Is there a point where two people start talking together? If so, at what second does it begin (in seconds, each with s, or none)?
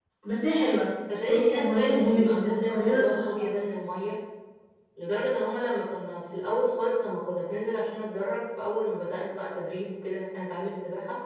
1.1 s